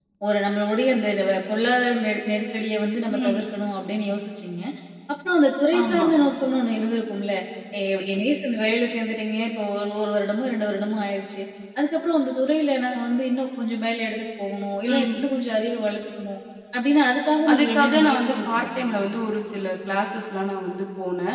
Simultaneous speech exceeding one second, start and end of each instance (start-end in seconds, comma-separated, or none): 17.5-18.9